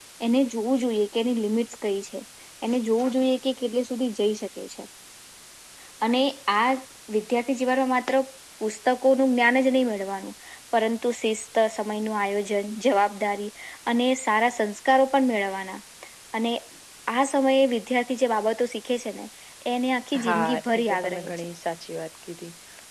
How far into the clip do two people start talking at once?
20.2 s

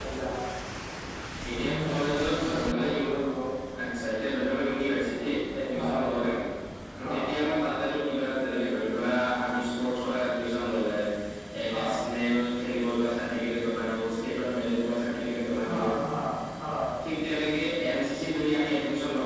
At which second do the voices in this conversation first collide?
1.6 s

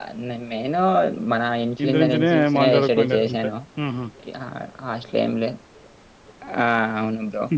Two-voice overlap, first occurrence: 1.8 s

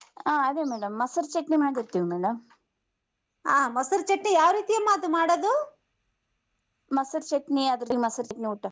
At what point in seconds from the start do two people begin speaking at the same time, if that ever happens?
none

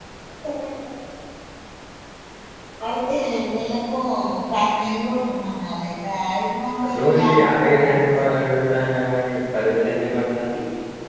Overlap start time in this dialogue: 6.9 s

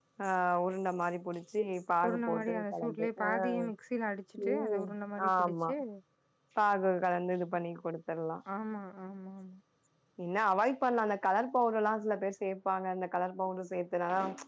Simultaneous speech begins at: 2.1 s

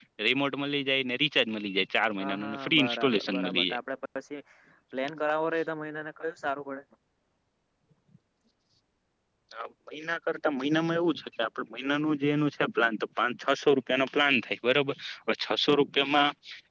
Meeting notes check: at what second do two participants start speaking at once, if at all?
2.2 s

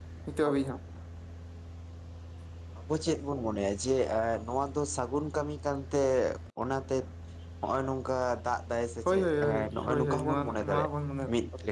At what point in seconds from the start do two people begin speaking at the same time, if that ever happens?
9.1 s

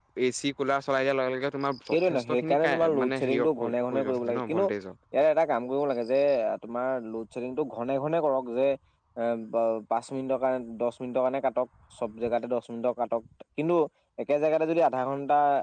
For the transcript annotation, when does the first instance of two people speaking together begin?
1.9 s

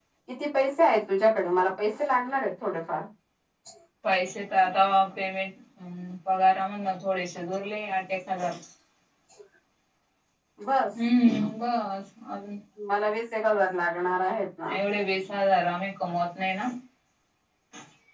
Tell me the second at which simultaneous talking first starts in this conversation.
none

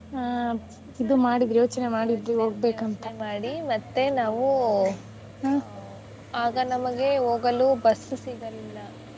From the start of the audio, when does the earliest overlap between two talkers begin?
none

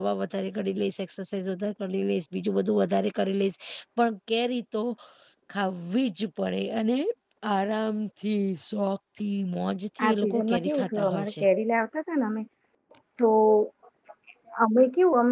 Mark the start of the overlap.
10.0 s

